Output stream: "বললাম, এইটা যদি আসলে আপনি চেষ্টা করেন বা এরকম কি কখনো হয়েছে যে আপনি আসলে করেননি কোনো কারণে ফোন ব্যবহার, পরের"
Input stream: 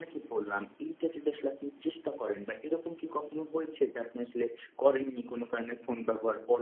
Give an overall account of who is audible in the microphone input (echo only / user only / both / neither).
echo only